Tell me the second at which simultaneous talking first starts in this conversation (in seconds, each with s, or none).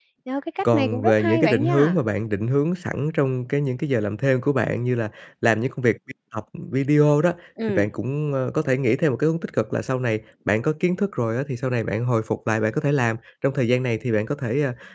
0.7 s